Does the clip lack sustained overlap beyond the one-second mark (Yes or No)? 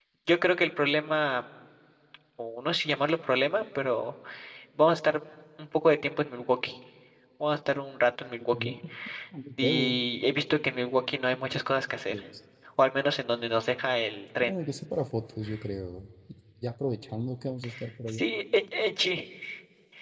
Yes